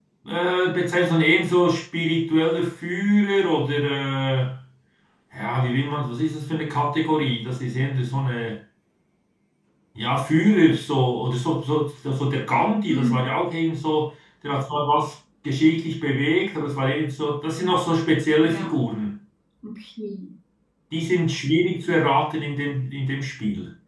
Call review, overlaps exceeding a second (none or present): none